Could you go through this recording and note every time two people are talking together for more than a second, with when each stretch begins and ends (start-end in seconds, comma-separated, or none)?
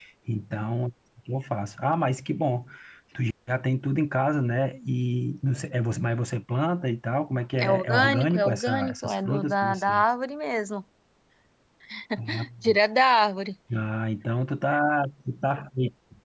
7.6-10.0